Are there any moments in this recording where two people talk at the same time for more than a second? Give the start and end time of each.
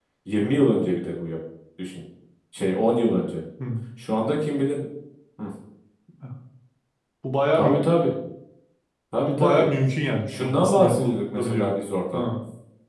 10.3-11.7

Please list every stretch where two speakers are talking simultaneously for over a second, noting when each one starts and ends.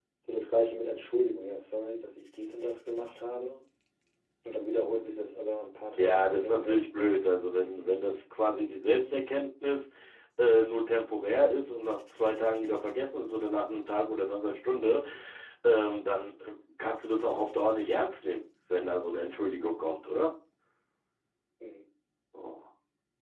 6.0-7.2

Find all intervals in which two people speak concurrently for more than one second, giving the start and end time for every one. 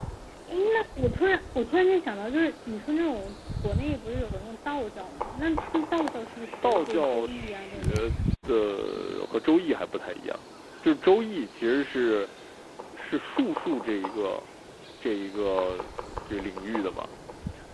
6.6-8.2

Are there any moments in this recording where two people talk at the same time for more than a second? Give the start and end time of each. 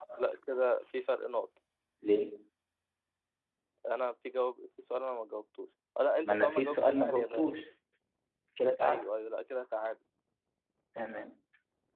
6.2-7.5

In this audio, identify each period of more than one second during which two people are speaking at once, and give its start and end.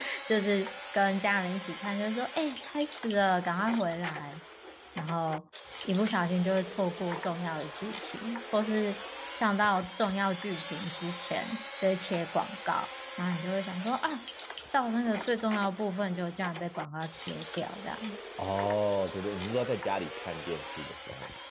none

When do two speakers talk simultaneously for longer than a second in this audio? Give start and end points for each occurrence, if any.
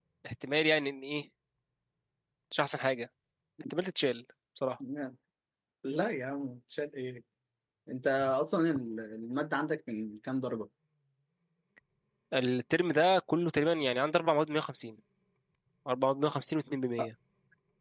none

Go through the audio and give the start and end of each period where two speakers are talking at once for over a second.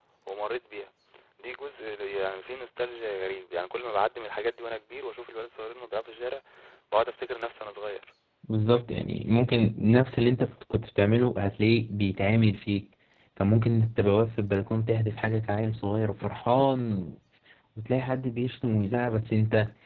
none

